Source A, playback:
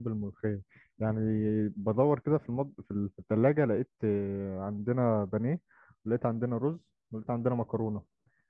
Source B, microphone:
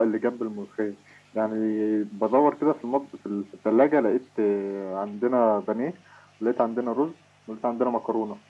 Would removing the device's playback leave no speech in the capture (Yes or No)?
Yes